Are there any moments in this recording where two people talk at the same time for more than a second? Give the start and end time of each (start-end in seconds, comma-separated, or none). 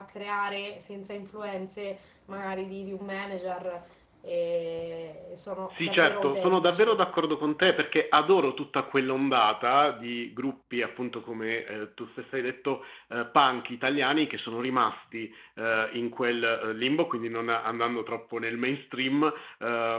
5.7-7.0